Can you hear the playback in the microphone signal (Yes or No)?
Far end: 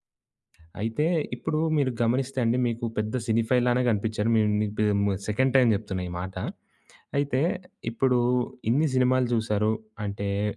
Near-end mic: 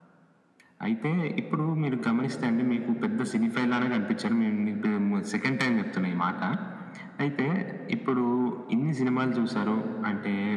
Yes